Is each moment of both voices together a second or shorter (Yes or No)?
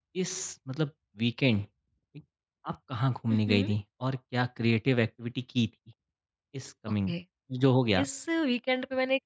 Yes